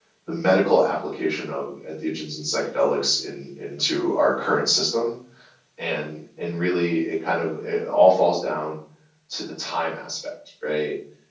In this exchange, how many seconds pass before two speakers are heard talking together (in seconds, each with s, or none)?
none